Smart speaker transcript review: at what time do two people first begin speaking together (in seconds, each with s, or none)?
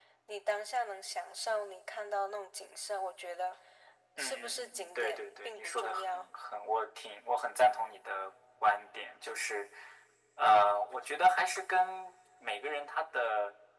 4.2 s